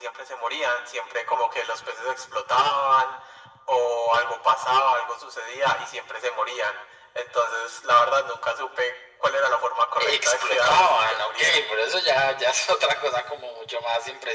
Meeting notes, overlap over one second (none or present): present